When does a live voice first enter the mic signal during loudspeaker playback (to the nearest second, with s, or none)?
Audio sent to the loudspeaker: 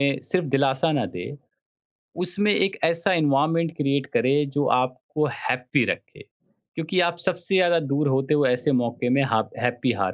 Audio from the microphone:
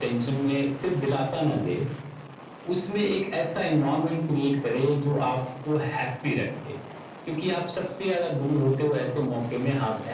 none